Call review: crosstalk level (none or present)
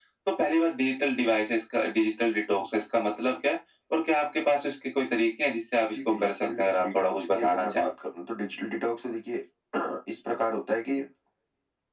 present